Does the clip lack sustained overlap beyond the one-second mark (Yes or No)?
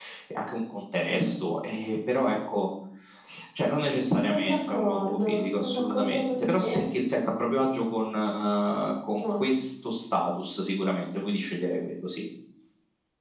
No